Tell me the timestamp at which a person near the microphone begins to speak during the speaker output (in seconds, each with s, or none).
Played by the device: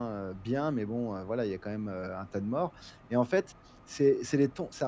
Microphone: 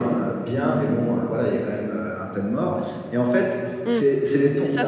3.9 s